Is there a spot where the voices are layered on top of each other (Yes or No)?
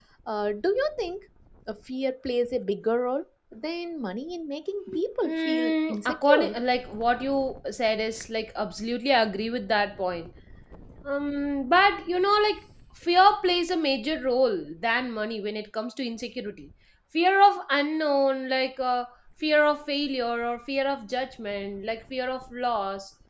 Yes